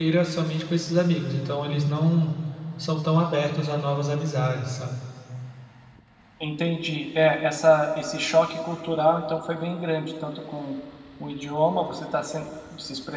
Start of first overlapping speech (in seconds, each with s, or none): none